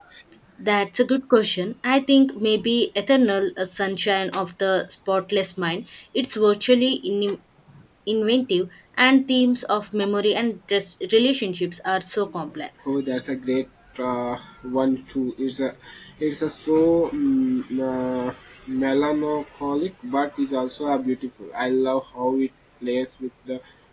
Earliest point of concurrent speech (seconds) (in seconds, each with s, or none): none